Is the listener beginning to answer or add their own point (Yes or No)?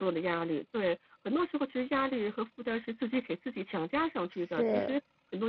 No